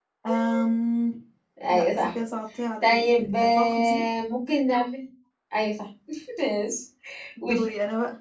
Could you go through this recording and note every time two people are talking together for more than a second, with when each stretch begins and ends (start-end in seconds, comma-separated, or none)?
2.8-4.0